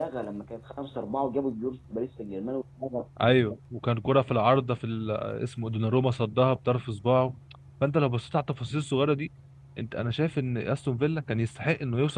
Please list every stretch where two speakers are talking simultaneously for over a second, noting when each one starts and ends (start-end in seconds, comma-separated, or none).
none